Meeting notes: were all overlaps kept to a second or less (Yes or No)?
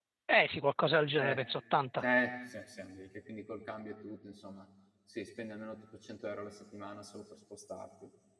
Yes